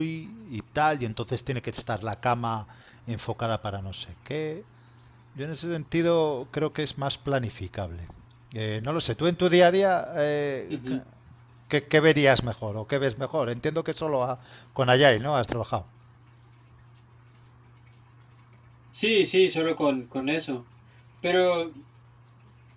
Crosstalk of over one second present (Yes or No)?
No